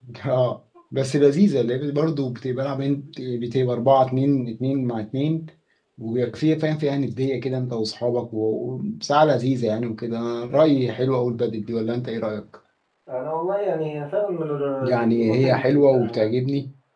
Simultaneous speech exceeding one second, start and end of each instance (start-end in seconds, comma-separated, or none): 14.8-16.3